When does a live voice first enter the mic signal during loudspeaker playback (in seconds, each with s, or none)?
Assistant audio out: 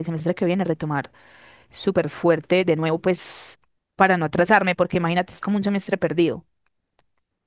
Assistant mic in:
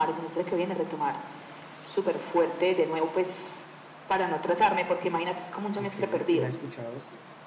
5.8 s